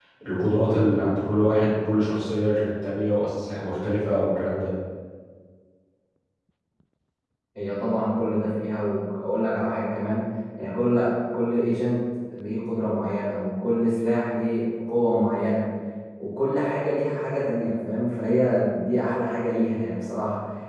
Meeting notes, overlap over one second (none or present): none